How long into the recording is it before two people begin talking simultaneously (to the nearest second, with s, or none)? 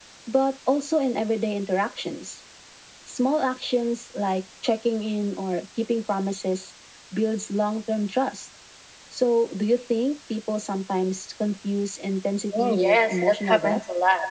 13 s